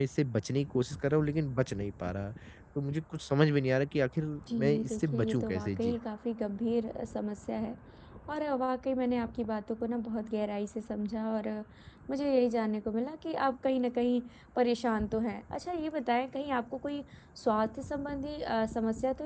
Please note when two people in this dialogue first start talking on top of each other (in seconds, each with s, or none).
4.5 s